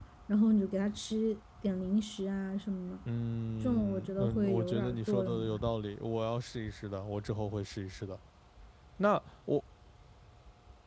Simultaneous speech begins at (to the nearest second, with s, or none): 4 s